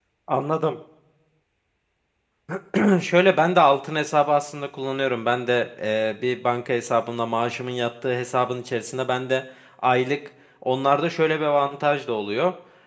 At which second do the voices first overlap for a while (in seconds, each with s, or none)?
none